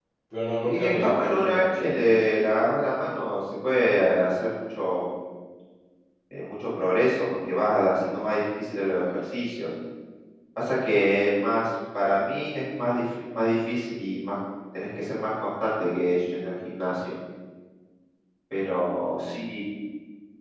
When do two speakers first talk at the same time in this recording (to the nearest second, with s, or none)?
1 s